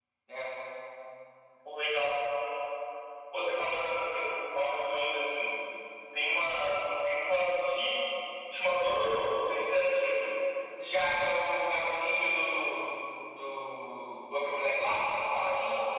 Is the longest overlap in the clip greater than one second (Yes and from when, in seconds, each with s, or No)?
No